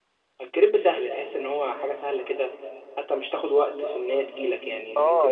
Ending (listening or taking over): taking over